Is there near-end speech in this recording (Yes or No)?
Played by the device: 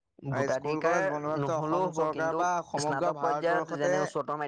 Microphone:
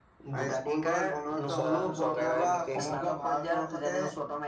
Yes